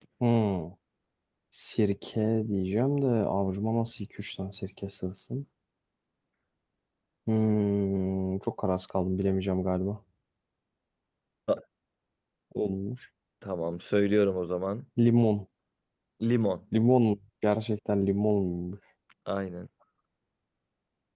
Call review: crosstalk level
none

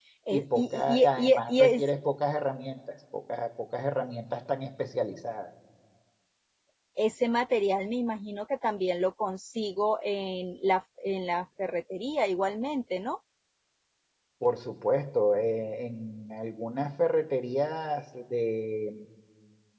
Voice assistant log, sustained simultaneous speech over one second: present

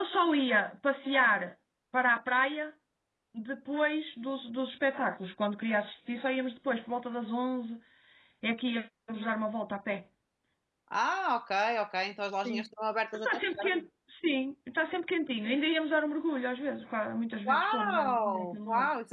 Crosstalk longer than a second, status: present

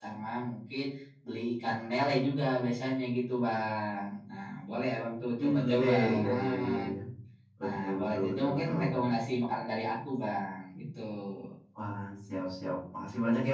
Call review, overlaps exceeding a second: present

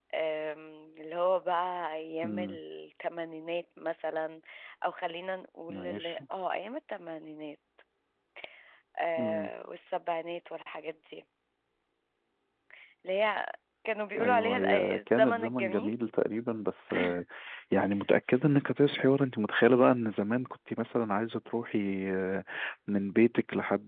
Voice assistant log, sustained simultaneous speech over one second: present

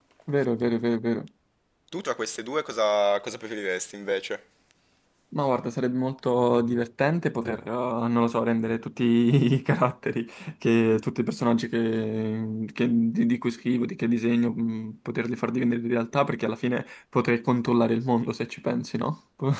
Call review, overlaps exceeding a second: none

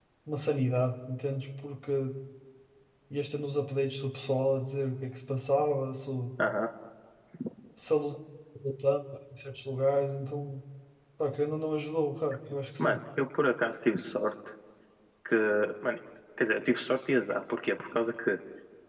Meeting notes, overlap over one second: none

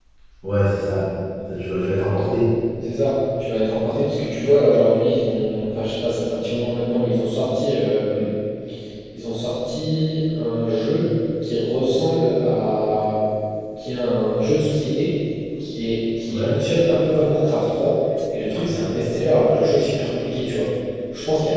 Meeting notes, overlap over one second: none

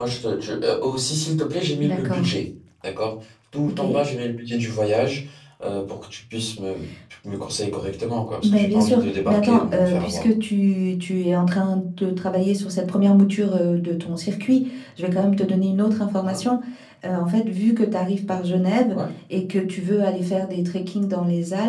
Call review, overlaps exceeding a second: present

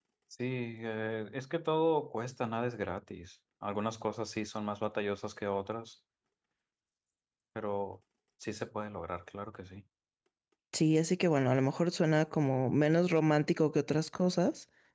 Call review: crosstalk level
none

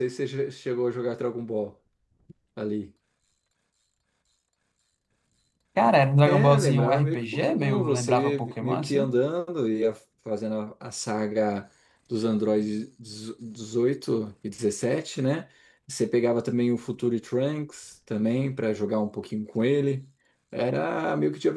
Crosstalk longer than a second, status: present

